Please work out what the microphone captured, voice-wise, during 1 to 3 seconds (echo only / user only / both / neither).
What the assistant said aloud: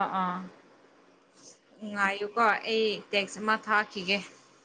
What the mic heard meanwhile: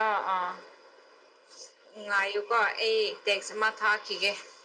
echo only